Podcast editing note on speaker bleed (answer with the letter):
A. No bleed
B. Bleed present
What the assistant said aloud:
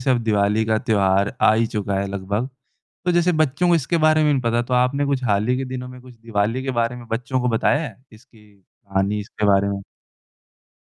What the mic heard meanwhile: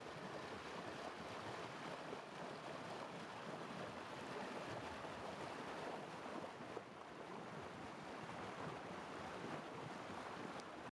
A